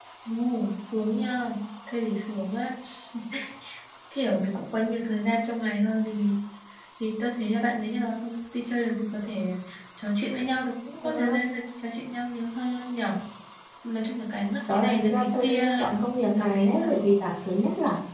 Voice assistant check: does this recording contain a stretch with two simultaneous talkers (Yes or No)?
Yes